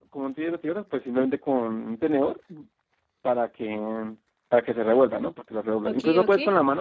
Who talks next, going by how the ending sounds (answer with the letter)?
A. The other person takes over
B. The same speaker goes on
B